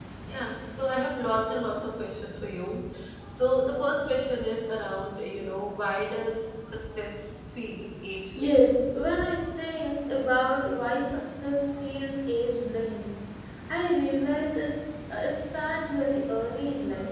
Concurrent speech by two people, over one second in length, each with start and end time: none

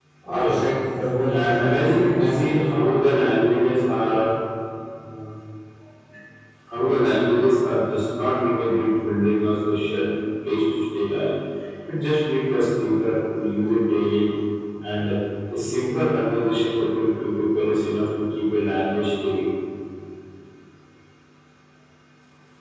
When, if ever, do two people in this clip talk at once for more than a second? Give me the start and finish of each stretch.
1.3-2.7

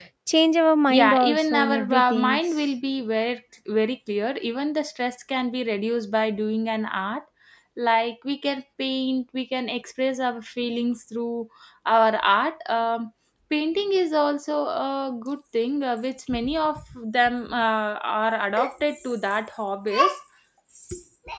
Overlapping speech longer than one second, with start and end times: 0.9-2.4

